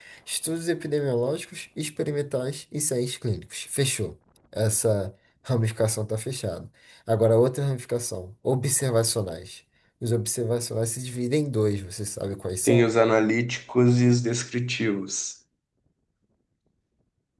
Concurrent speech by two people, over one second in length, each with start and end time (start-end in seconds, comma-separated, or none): none